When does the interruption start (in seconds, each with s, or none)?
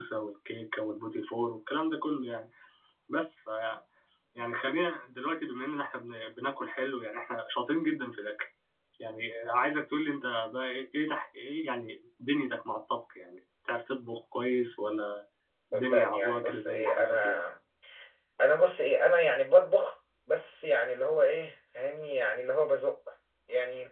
15.7 s